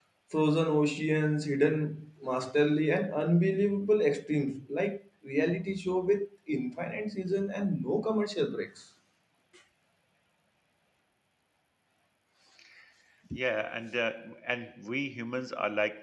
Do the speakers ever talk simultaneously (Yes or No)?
No